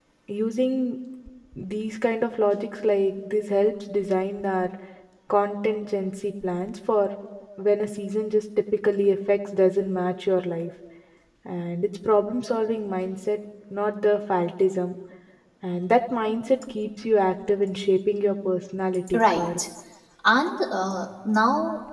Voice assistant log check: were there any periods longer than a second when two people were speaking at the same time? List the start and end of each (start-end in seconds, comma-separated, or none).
none